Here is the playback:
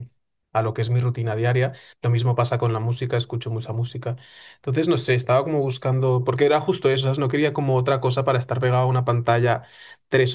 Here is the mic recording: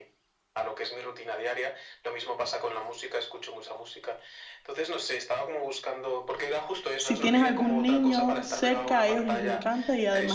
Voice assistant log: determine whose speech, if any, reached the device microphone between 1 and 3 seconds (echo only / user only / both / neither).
echo only